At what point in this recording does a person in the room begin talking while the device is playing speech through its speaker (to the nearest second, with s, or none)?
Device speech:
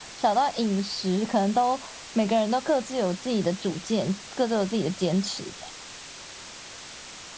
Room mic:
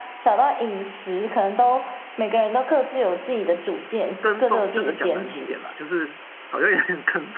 4 s